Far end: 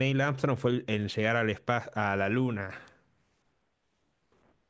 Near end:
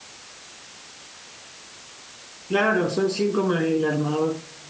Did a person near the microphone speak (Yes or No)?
Yes